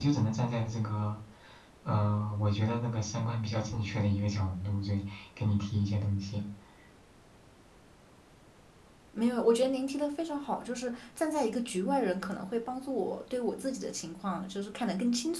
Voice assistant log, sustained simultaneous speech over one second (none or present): none